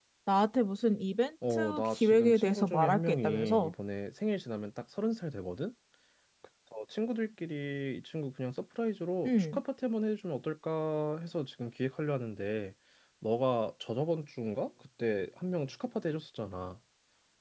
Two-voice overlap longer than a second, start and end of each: 1.5-3.7

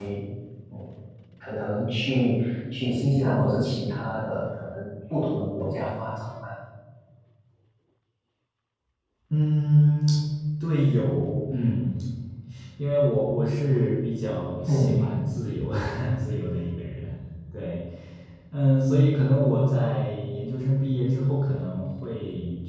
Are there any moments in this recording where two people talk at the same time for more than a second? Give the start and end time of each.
none

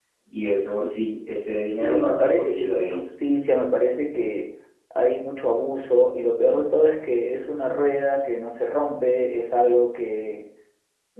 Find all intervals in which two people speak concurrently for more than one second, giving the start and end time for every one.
1.8-3.0

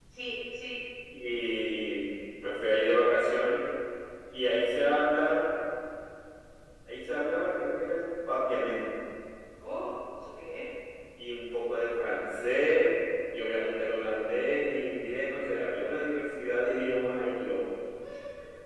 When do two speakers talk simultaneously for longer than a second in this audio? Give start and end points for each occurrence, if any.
none

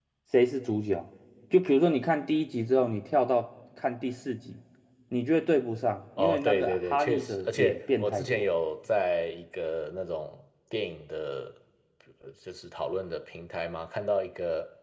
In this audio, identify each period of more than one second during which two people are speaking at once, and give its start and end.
6.2-8.5

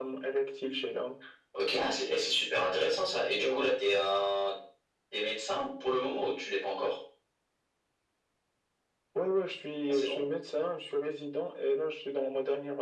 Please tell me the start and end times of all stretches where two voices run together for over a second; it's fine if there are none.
none

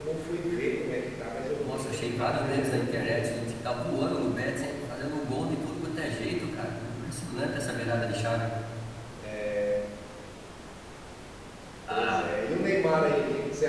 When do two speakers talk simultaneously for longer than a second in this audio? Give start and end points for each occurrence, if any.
1.6-3.5

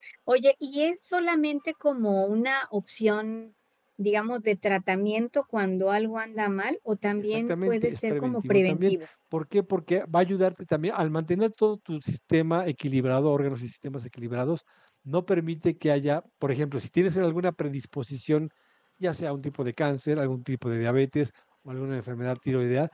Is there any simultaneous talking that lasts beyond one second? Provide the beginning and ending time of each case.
7.3-8.9

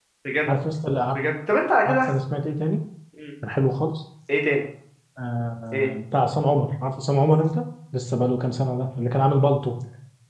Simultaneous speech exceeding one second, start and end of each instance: none

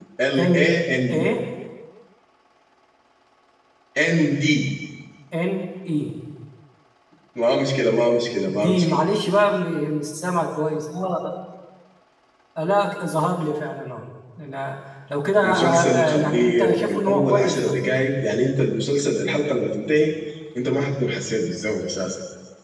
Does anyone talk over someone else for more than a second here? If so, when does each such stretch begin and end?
15.4-17.7

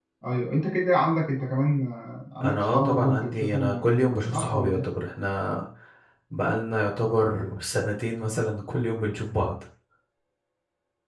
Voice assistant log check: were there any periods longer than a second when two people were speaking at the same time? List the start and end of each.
2.4-4.9

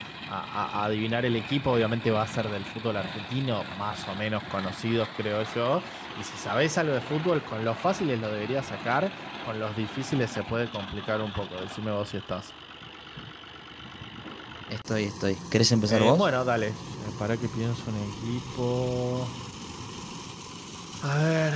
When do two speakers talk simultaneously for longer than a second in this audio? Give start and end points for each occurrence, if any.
none

